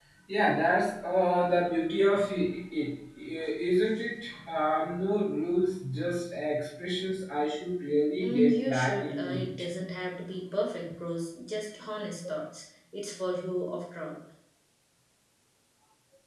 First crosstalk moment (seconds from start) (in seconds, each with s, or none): 8.2 s